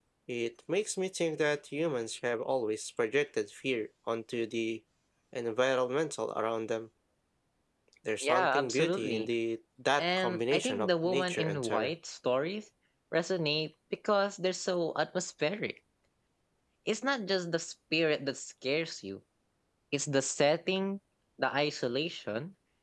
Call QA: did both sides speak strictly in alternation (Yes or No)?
No